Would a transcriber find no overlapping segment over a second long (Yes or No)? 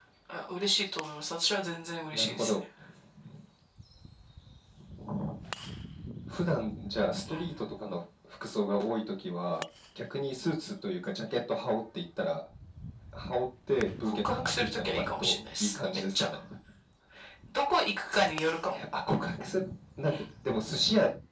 No